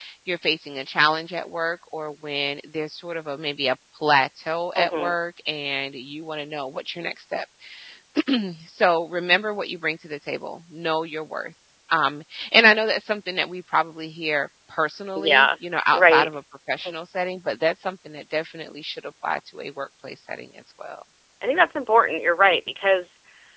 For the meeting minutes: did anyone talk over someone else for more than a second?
No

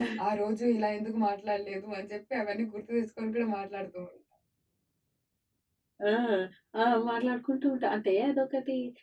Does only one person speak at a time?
Yes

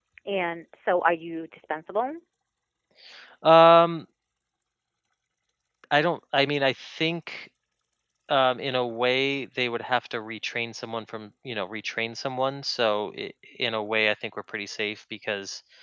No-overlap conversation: Yes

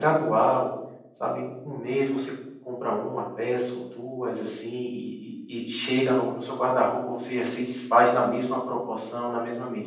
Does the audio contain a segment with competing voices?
No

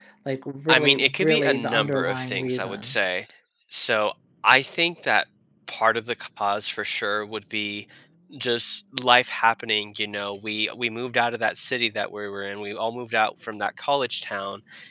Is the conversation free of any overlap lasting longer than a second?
No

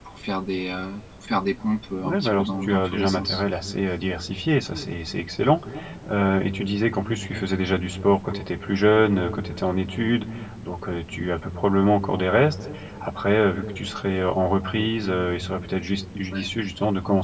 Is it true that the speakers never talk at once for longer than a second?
No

